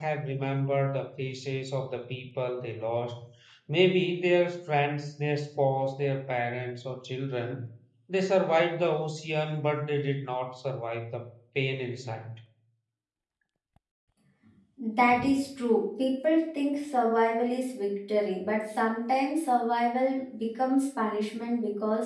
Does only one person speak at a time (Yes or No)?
Yes